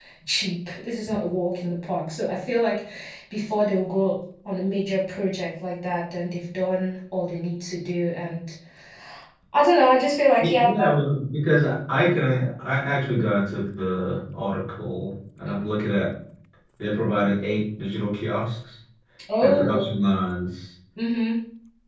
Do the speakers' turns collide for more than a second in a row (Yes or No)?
No